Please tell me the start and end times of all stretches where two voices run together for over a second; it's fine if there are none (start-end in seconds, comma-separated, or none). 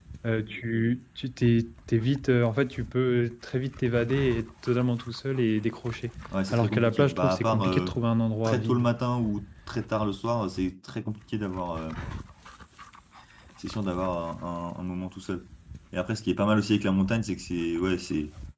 6.5-7.9